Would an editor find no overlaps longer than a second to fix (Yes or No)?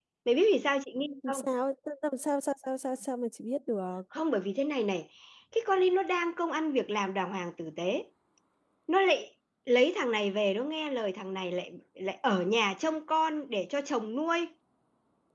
Yes